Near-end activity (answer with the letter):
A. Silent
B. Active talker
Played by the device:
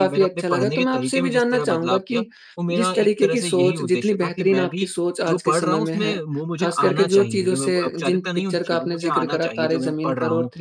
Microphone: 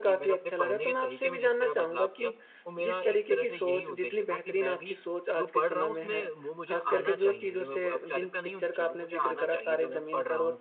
A